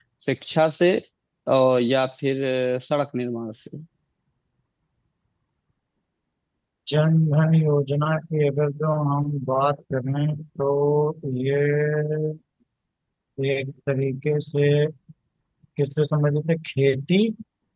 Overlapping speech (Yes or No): No